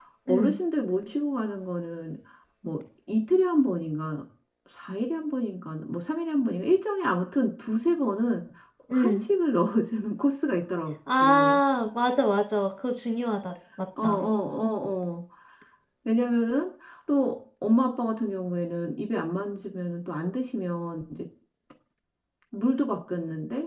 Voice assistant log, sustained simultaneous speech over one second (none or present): none